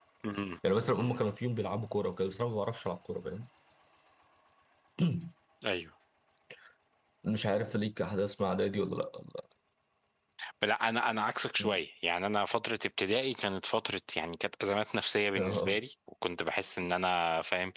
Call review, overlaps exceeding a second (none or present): none